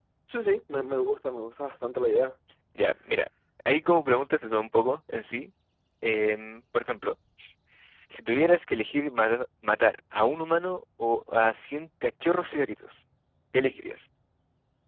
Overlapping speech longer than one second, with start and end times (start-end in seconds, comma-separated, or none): none